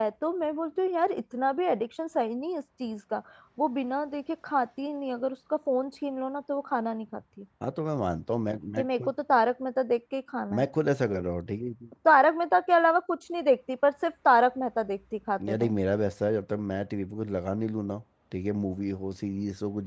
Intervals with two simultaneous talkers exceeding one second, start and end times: none

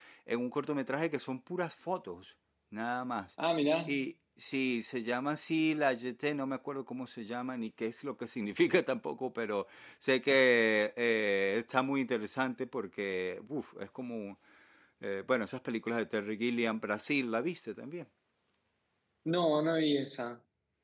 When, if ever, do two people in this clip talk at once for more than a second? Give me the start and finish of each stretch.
none

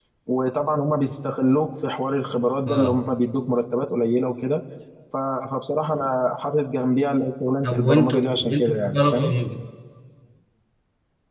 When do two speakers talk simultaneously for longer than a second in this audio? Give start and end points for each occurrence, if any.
7.6-9.3

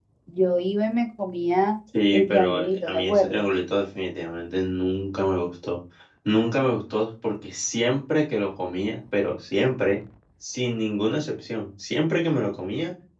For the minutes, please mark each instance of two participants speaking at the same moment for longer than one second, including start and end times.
2.1-3.4

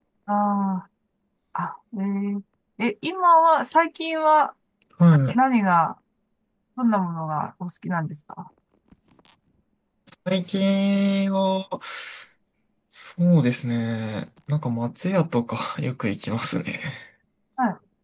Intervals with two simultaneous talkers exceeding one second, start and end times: none

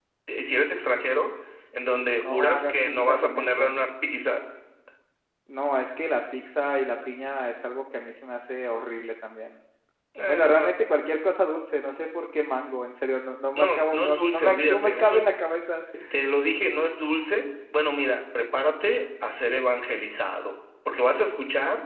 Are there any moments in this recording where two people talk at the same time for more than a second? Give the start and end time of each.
2.2-3.7, 13.6-15.2

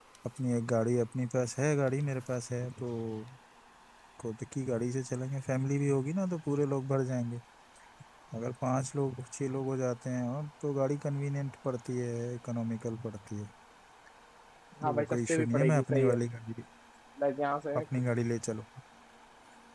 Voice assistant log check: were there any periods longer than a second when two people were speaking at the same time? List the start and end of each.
14.8-16.1

